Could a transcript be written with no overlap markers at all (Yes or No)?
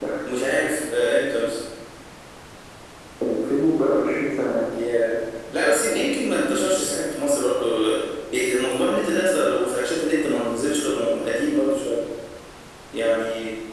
Yes